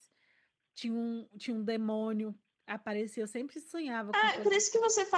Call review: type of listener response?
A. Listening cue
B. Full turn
B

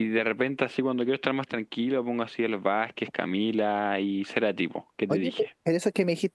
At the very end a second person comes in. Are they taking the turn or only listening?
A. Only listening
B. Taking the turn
B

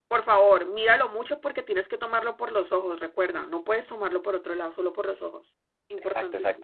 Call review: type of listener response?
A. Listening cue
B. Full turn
B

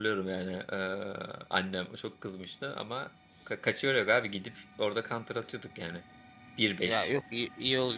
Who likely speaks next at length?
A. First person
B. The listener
B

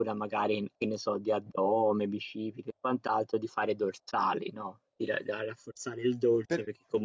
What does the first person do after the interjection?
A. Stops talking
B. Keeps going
B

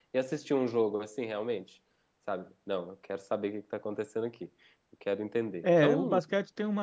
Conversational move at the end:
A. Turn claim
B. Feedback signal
A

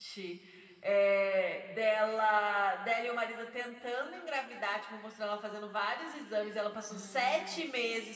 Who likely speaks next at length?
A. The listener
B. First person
B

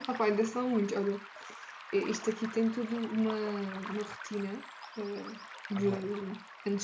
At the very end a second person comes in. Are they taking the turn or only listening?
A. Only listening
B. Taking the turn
A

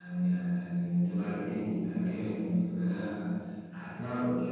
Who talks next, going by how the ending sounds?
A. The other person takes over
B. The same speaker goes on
B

